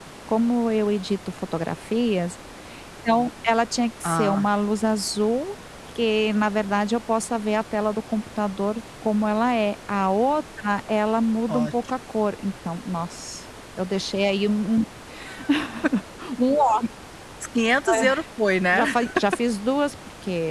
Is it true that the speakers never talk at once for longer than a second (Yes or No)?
Yes